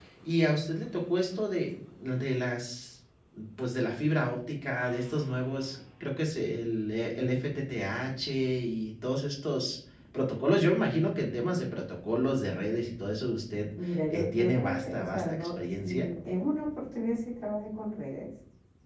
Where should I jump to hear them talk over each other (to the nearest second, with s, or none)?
14 s